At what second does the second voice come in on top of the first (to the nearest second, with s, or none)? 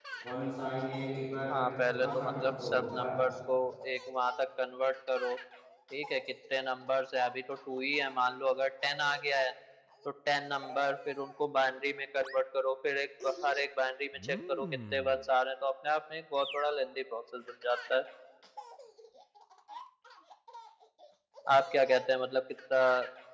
2 s